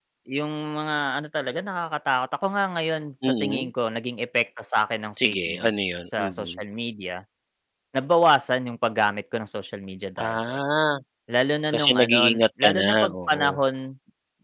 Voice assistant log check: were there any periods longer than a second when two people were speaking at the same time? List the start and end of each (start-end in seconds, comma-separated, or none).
5.2-6.6, 11.7-13.5